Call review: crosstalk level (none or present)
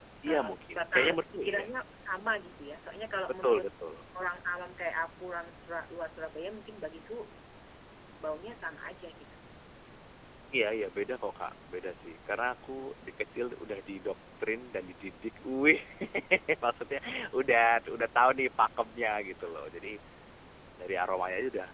present